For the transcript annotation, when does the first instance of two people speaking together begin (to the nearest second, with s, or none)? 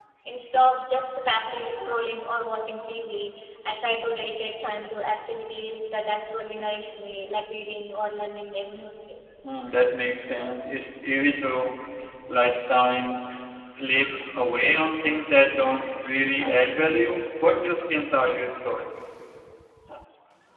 none